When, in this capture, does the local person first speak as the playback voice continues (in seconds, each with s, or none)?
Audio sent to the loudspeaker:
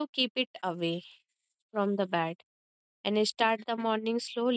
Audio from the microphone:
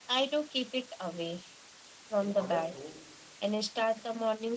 2.2 s